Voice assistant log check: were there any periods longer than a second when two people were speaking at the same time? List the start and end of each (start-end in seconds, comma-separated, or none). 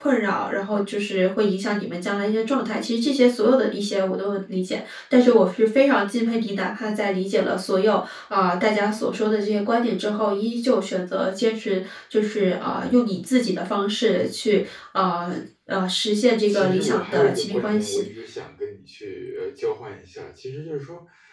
16.5-18.0